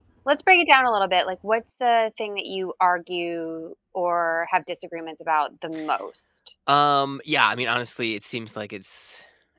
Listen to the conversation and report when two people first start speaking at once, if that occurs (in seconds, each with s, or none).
none